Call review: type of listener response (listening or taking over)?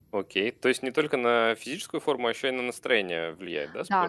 taking over